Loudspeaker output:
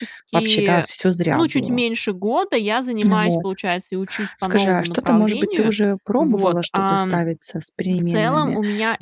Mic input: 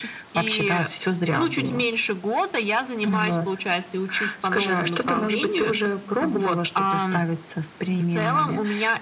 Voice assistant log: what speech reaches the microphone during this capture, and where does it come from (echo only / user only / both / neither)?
echo only